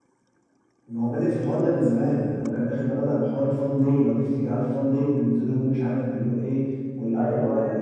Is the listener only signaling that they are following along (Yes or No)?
Yes